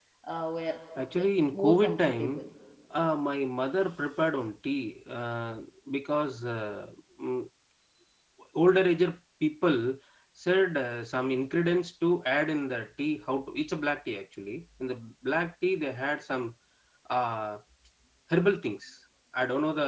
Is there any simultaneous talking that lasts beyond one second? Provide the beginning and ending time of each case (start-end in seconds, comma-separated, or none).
1.2-2.4